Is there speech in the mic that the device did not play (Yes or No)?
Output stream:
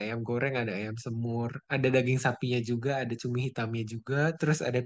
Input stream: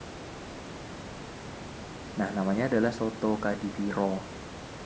Yes